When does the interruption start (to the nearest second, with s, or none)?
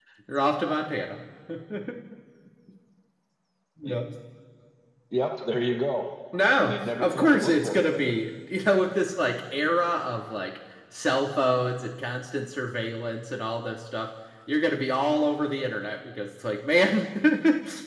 7 s